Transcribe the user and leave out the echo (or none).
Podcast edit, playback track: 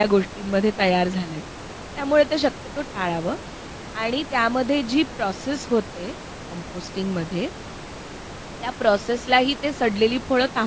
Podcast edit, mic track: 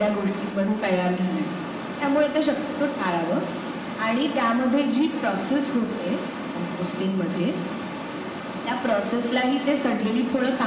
none